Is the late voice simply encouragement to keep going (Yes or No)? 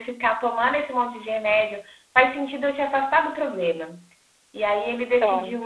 Yes